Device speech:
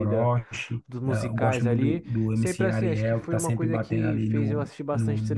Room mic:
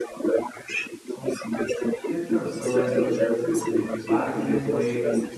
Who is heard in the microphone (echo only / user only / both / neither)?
both